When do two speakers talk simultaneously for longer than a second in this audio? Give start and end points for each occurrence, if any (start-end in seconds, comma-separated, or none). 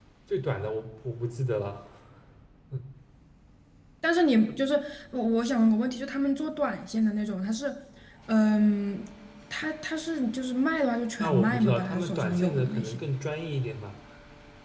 11.2-13.0